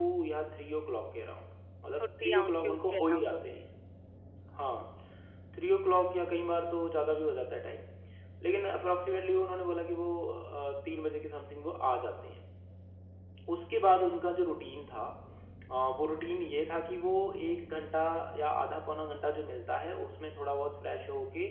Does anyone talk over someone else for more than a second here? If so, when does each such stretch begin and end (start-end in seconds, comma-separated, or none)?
2.0-3.6